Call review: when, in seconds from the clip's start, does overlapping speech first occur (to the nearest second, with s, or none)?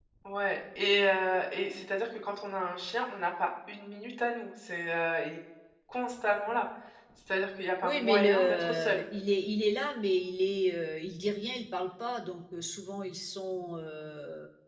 8 s